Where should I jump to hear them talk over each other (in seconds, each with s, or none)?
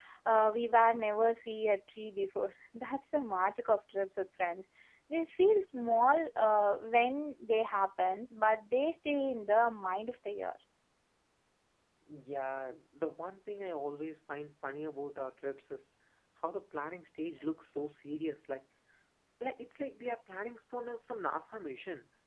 none